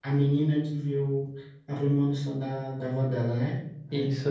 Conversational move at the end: taking over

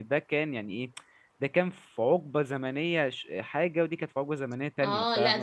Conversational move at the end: taking over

